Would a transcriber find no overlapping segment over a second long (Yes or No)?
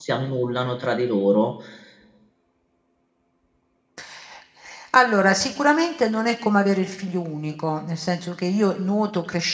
Yes